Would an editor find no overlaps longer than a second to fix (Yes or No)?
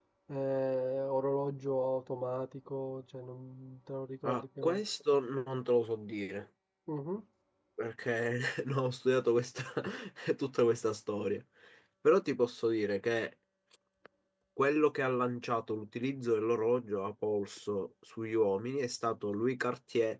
Yes